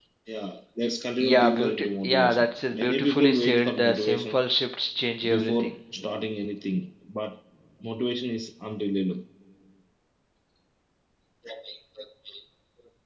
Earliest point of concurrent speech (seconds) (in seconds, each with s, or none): 1.2 s